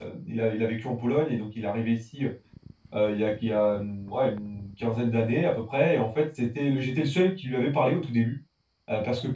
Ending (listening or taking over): listening